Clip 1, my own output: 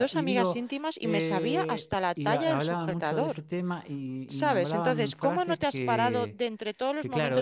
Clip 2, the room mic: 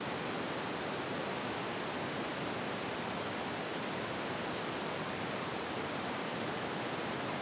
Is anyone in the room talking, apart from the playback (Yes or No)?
No